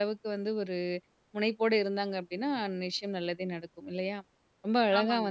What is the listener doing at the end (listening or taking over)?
listening